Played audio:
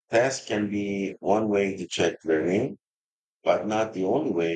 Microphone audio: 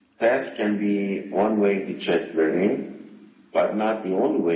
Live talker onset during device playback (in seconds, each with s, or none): none